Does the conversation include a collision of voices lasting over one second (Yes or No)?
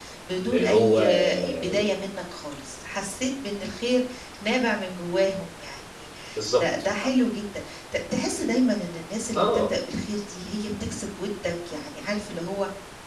Yes